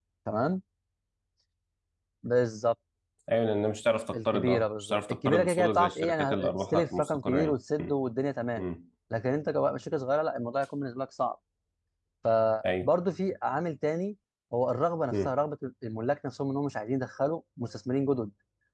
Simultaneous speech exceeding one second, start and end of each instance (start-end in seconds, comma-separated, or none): 4.1-7.9